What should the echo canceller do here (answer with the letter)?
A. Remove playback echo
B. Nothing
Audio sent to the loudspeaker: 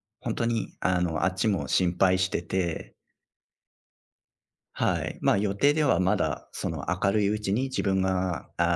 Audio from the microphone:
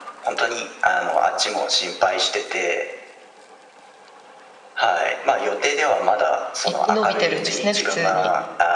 A